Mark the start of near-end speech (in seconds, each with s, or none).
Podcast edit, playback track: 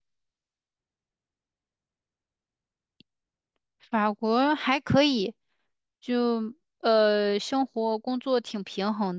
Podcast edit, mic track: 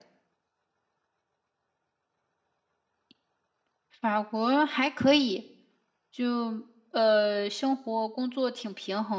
none